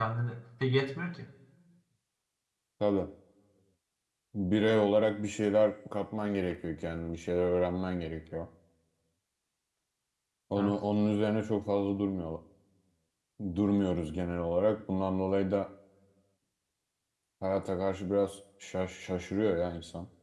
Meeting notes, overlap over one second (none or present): none